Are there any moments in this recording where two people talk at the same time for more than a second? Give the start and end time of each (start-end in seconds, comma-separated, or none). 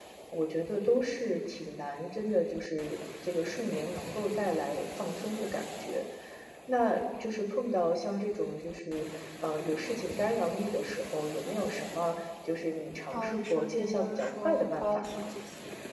13.1-15.3